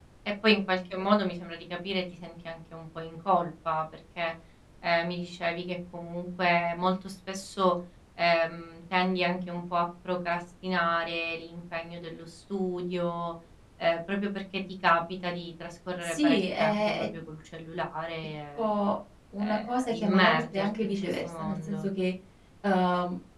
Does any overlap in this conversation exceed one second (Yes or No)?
Yes